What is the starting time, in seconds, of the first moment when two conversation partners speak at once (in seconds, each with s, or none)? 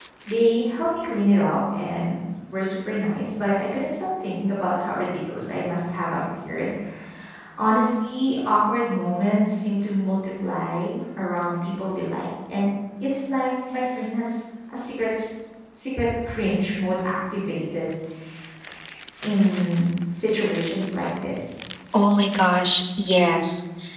none